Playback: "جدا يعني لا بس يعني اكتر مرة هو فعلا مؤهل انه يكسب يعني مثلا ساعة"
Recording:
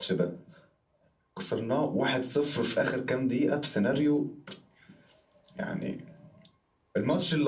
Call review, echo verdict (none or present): none